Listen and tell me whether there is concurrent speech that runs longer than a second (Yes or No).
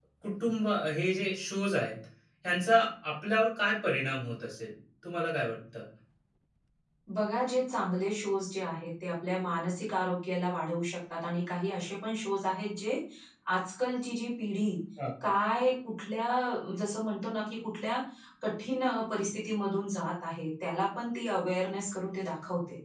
No